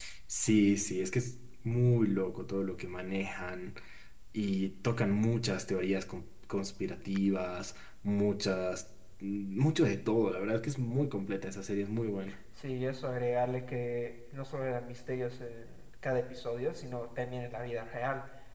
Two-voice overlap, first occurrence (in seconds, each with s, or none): none